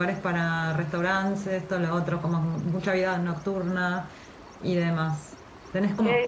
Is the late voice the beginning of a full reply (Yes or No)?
No